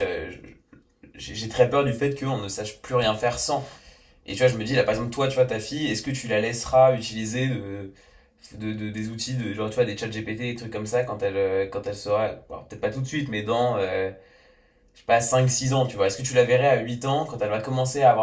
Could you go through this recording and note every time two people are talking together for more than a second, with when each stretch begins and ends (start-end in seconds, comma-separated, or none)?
none